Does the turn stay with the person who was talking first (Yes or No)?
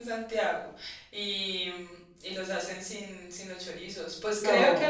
Yes